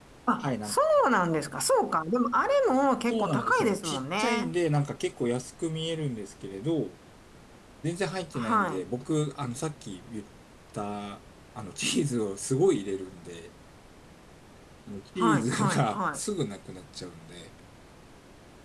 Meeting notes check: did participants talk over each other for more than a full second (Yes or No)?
Yes